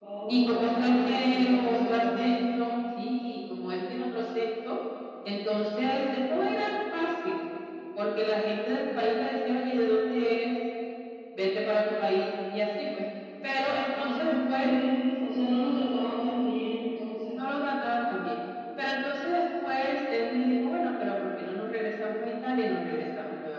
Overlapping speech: Yes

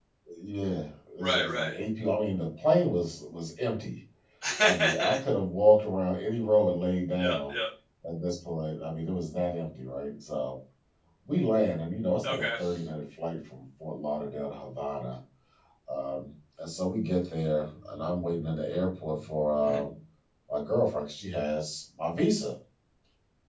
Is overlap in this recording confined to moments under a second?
Yes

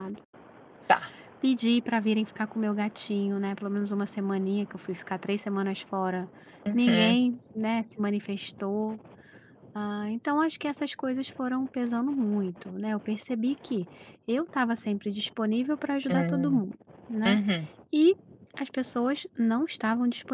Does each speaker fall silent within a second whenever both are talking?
Yes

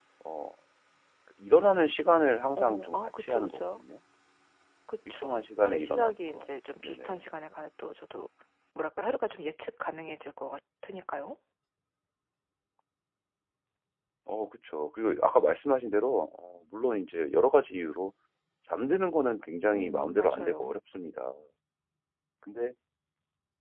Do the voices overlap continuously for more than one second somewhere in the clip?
Yes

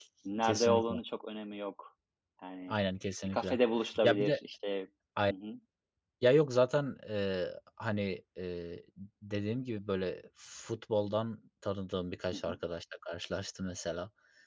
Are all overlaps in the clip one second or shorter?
Yes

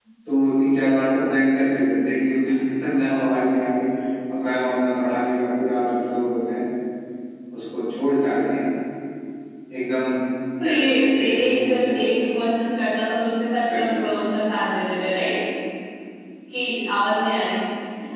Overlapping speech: Yes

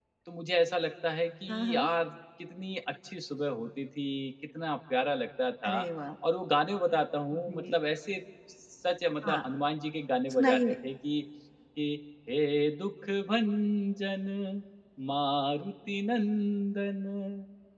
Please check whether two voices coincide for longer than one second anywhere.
No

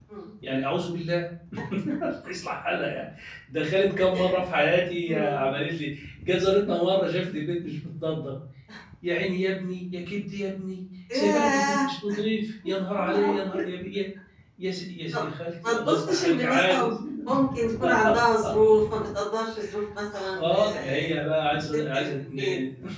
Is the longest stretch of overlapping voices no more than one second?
No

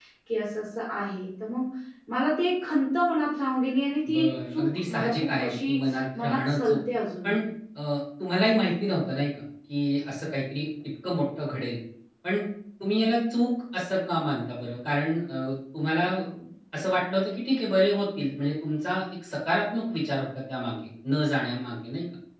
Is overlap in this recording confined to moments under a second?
No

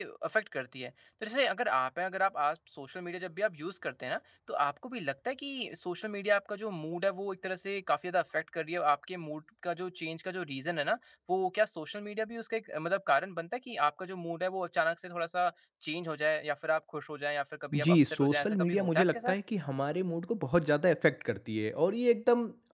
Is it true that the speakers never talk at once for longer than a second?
No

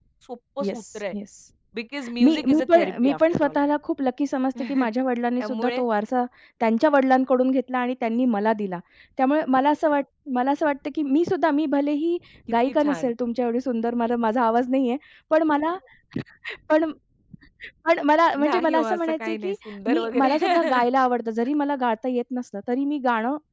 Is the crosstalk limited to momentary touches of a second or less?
No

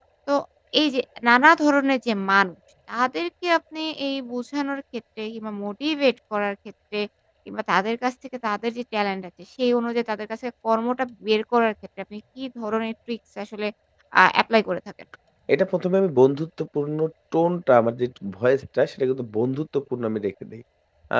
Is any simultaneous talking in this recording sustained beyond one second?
No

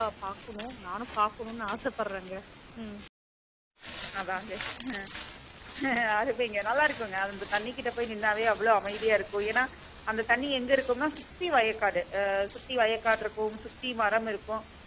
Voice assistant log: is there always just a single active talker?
Yes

